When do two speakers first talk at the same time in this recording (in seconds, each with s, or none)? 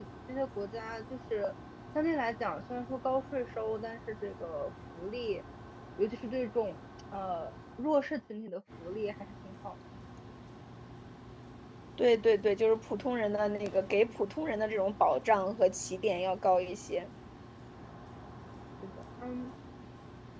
none